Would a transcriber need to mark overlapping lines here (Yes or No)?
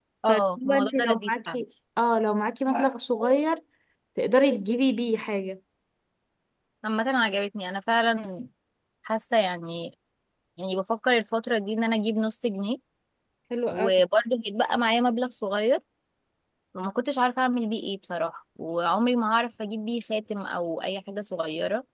Yes